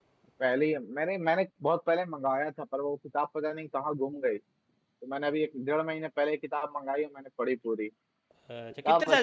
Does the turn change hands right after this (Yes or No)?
Yes